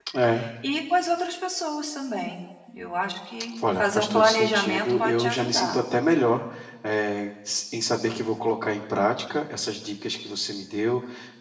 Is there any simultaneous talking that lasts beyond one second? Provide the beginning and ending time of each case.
3.8-5.8

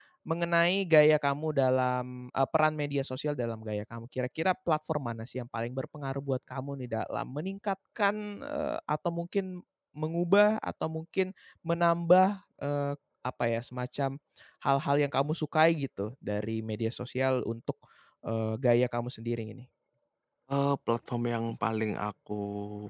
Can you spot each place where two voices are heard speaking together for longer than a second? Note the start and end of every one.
none

